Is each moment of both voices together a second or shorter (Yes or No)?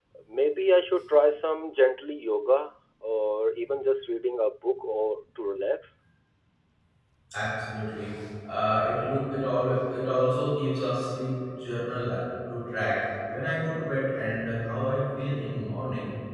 Yes